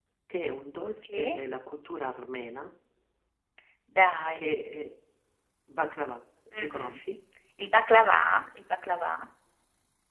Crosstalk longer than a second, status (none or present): none